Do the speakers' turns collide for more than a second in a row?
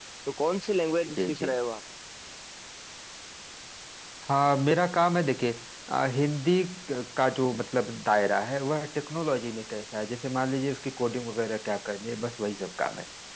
No

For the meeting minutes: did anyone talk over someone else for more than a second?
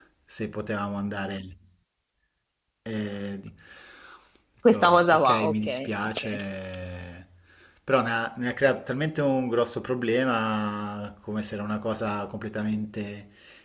Yes, from 4.7 s

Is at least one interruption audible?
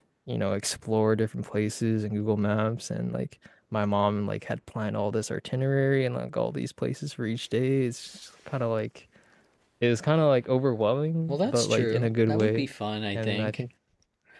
Yes, from 11.3 s

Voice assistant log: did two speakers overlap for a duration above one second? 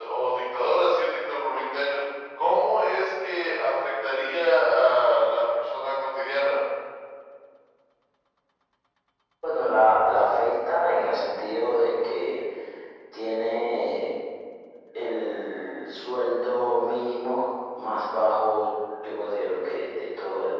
No

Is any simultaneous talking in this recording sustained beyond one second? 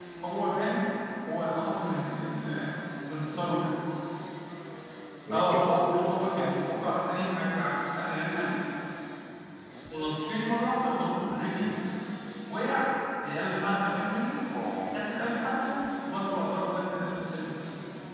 Yes, from 5.3 s

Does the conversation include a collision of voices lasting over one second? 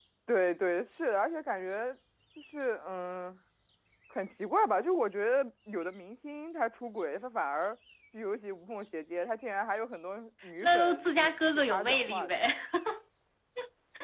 Yes, from 10.6 s

